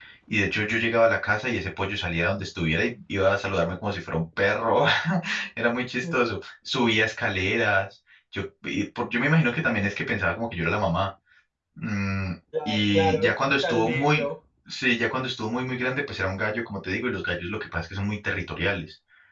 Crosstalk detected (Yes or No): Yes